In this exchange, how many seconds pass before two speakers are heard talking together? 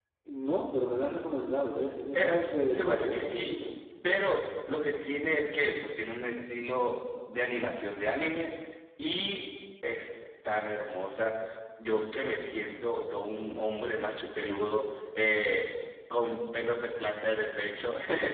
2.1 s

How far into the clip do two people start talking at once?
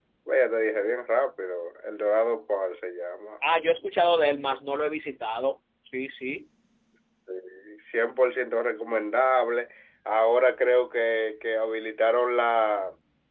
none

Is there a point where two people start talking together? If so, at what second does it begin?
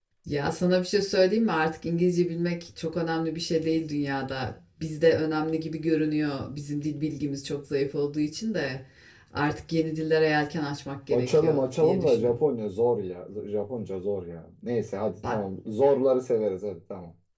11.1 s

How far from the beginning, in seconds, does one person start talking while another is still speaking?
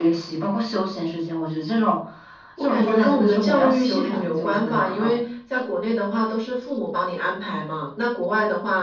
2.6 s

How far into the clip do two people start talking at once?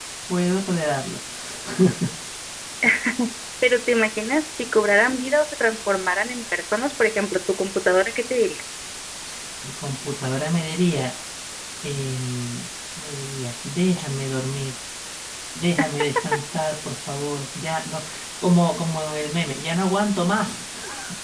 none

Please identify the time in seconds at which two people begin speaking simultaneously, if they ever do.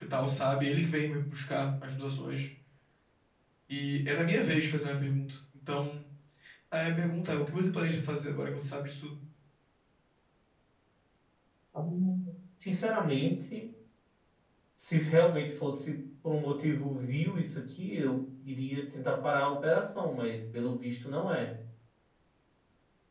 none

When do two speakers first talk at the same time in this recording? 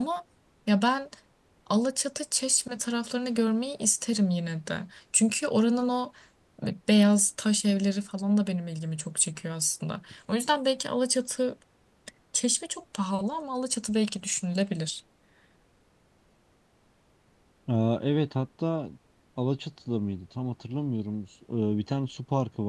none

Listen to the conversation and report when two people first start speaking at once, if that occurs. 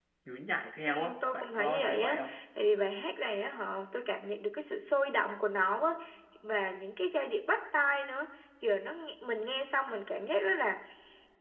0.9 s

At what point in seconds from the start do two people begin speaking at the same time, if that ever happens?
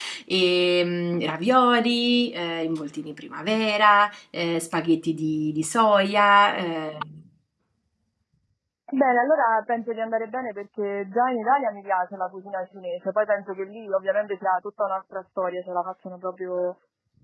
none

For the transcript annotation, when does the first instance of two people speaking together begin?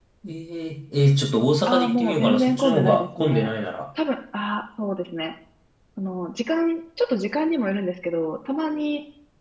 1.7 s

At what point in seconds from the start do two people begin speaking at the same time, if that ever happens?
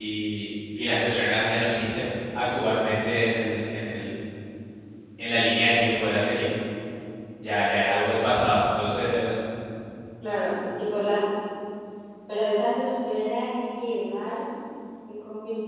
none

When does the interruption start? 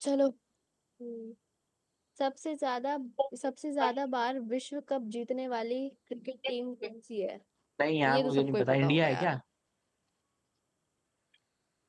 8.1 s

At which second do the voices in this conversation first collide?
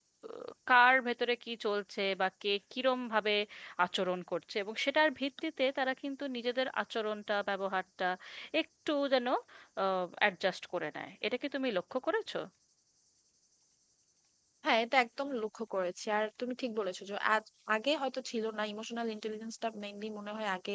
none

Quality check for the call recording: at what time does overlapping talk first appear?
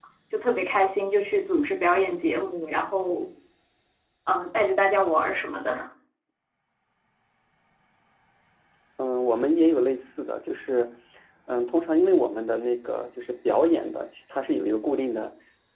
none

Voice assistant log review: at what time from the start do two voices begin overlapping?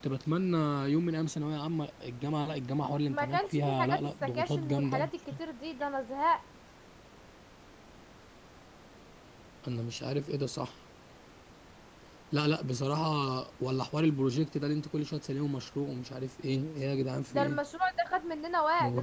3.1 s

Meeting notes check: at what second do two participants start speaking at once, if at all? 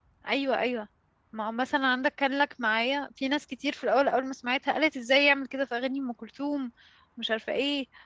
none

